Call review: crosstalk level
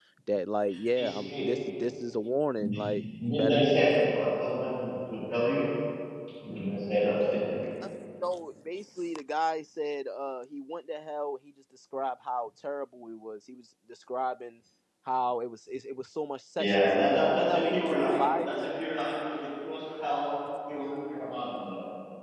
present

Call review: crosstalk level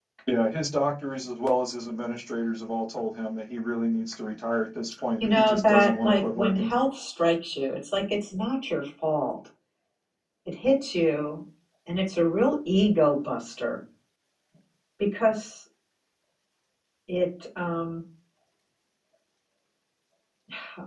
present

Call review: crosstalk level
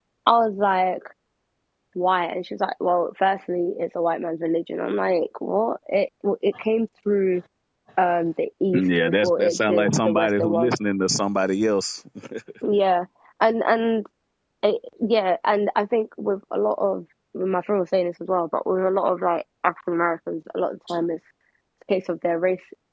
present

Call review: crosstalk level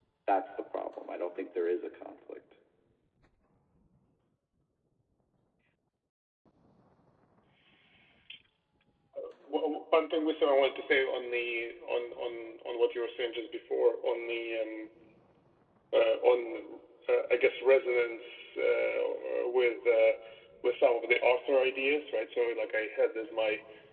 none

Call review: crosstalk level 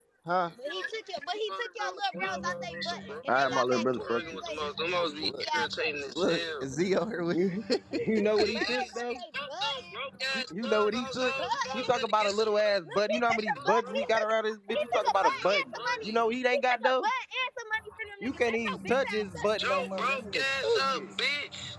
present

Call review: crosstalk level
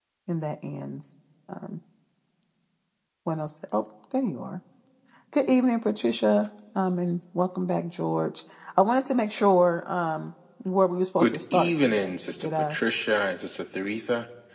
present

